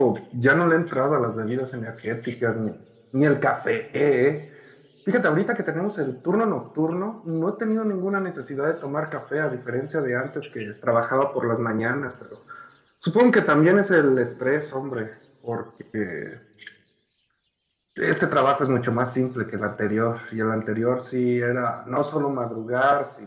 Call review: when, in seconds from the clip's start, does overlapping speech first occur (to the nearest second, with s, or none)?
none